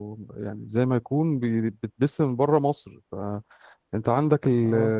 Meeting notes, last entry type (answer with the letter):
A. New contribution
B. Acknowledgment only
B